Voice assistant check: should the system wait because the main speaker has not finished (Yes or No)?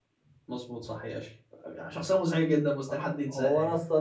No